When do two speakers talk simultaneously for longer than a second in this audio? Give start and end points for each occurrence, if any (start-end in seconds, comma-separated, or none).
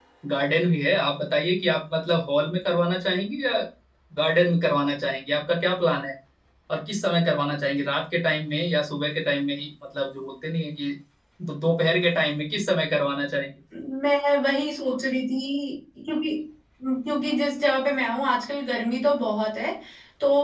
none